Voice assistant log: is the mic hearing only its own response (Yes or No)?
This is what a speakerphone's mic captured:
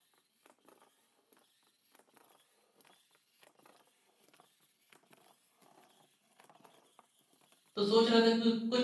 No